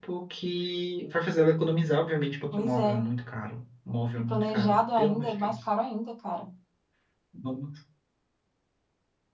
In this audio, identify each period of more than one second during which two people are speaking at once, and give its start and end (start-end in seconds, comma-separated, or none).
4.3-5.5